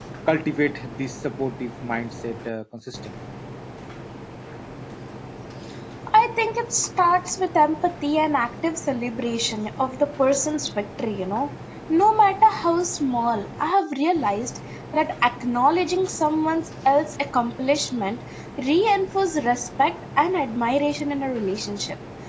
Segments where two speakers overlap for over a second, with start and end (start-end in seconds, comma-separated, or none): none